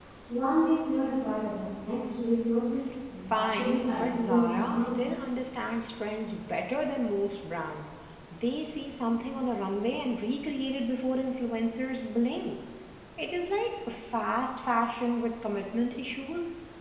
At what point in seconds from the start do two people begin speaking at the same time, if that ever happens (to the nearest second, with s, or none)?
3 s